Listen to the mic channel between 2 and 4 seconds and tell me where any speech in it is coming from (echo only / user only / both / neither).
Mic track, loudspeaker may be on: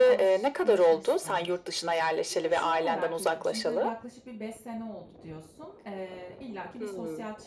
both